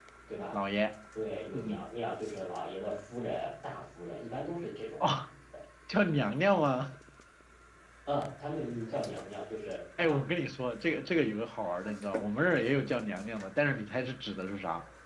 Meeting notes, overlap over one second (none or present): none